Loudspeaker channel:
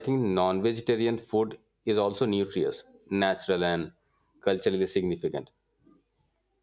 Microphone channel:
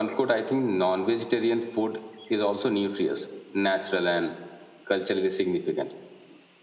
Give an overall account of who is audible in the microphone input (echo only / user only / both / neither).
echo only